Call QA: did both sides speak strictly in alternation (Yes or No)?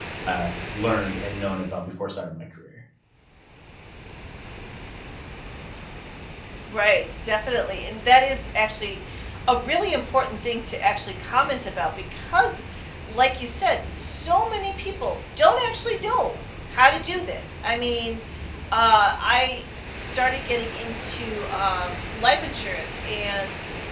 Yes